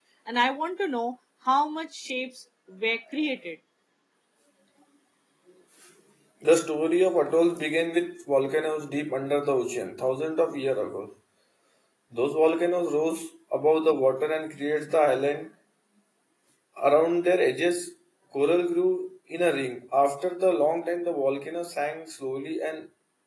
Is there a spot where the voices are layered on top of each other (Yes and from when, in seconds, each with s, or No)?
No